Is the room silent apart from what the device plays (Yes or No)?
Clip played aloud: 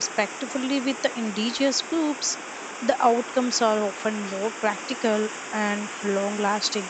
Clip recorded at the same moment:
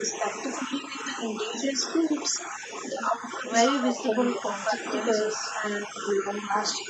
No